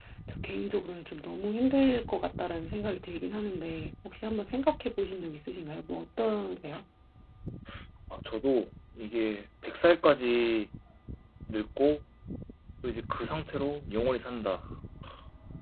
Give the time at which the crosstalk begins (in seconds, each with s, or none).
none